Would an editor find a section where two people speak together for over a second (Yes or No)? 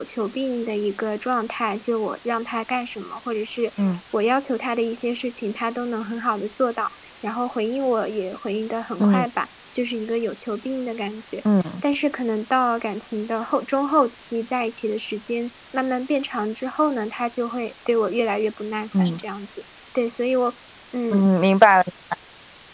No